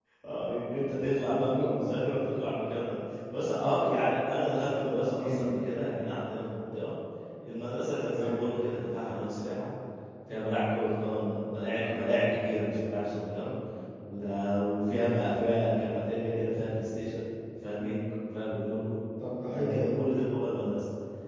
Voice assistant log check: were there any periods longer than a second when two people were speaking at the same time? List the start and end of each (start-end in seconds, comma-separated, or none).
none